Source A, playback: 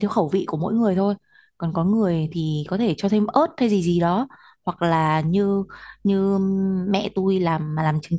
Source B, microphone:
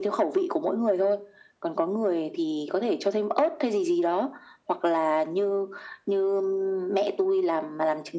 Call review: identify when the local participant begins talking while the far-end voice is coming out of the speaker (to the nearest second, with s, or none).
none